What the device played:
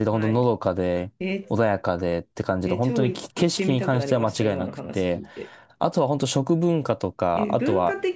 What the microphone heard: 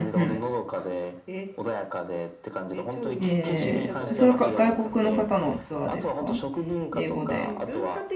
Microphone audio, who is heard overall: both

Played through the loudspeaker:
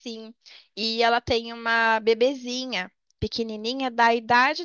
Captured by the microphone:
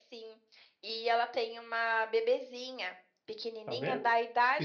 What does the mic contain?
both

